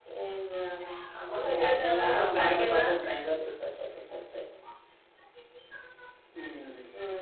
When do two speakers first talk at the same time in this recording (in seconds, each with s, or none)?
1.3 s